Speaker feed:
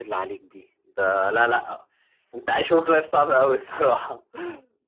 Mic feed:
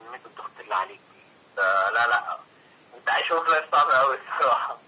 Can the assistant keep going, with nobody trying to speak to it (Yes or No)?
Yes